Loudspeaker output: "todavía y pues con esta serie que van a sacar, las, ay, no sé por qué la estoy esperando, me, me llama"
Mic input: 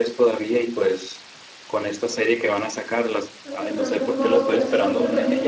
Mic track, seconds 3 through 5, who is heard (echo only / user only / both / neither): both